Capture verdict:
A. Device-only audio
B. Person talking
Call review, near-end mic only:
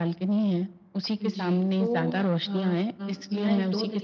B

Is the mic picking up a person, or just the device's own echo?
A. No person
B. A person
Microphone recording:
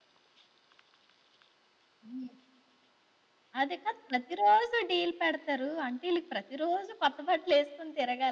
A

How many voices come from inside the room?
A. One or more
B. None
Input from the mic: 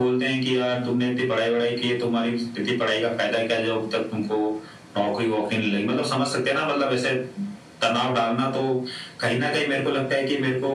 B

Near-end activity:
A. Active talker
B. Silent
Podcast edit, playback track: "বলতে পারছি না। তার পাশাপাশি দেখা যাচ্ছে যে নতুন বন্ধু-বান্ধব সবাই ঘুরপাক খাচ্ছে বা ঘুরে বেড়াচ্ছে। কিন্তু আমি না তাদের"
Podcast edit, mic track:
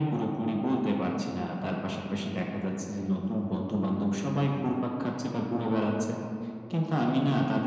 B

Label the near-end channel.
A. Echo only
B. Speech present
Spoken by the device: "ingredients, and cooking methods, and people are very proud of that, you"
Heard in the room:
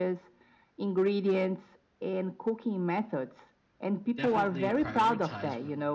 B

